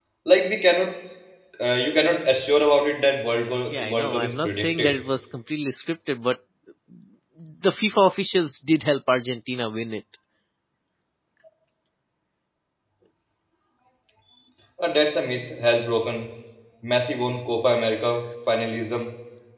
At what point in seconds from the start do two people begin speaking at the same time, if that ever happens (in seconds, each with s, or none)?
3.7 s